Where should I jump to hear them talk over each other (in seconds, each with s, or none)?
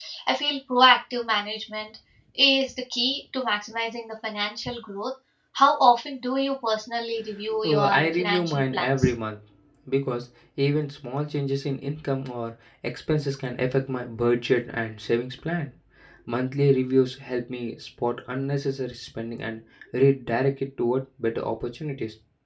7.6 s